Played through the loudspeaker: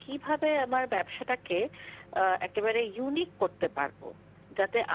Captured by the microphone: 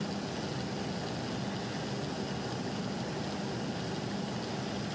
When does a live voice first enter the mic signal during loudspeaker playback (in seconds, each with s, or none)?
none